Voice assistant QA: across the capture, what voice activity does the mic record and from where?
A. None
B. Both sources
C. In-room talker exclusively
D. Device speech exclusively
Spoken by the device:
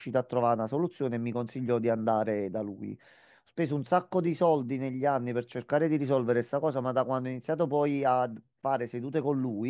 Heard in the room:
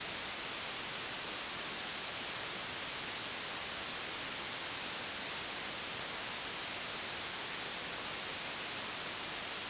A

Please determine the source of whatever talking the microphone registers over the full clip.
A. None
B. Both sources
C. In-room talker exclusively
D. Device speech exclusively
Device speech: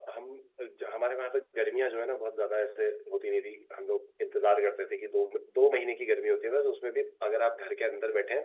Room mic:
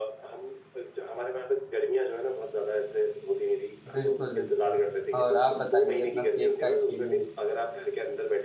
B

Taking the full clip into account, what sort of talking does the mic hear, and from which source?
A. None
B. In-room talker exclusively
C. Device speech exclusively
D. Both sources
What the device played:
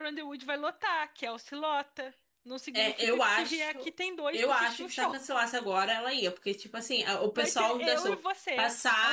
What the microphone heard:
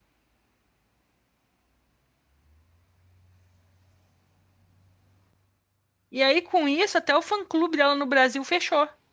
B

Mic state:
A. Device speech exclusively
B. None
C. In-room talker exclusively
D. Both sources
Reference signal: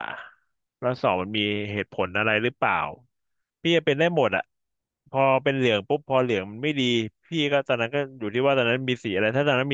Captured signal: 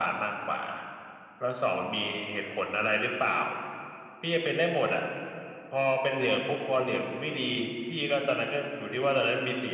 A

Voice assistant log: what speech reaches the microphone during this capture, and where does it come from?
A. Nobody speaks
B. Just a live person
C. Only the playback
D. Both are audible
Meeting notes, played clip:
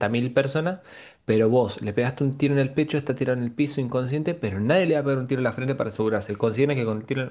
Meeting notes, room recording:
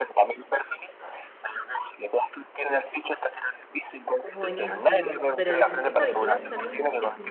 D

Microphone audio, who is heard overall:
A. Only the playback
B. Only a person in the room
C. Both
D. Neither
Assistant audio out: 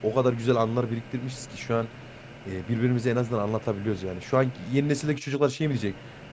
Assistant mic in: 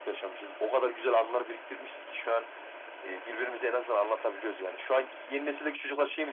A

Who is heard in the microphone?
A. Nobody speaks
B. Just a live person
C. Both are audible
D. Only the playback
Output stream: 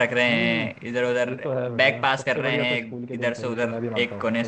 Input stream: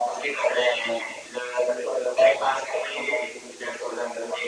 D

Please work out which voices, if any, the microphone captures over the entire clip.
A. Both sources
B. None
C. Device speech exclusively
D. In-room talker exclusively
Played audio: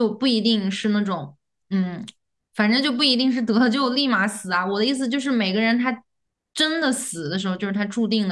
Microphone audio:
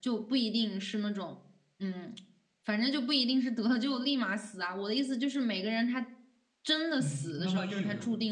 A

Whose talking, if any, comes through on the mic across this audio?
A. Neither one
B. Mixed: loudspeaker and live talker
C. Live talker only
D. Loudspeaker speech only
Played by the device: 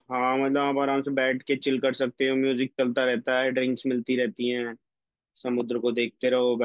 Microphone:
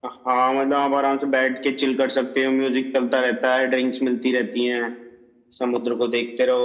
D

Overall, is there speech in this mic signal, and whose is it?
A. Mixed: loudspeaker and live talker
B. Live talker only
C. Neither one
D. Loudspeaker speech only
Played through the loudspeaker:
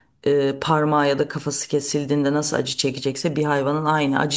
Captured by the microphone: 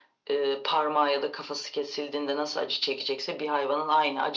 D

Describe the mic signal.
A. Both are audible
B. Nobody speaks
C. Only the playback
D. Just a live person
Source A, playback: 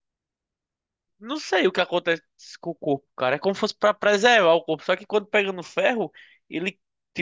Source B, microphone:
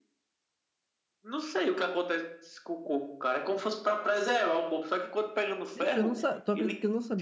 A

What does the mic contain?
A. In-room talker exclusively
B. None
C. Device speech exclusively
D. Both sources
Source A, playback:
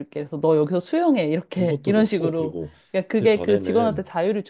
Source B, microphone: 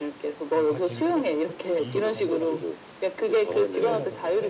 D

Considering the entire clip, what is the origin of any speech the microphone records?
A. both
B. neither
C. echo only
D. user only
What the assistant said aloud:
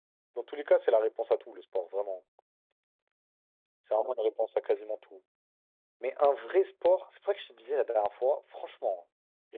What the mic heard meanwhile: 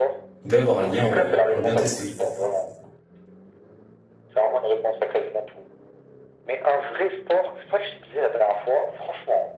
A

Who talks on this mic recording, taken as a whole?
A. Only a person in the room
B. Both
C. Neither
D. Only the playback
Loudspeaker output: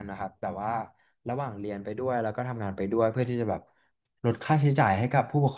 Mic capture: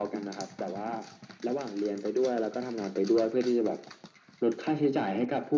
D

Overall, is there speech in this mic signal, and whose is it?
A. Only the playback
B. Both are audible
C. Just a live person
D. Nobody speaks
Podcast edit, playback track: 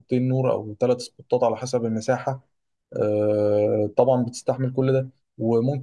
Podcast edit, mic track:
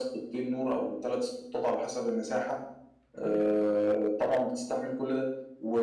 B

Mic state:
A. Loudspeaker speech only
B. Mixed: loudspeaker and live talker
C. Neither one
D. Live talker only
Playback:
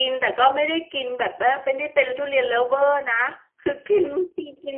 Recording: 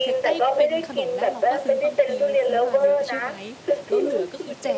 B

